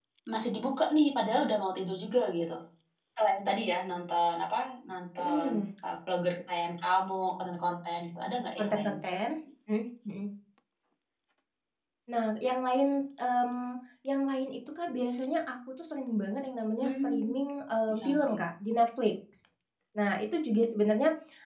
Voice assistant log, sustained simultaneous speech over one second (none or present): none